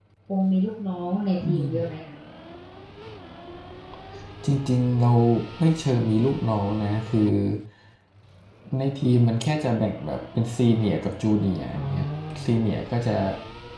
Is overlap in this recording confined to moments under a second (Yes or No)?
Yes